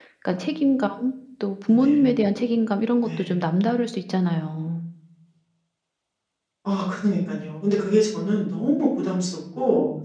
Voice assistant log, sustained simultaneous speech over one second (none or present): none